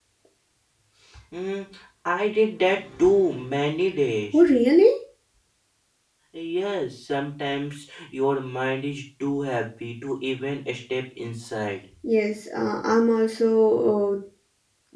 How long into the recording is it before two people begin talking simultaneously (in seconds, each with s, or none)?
none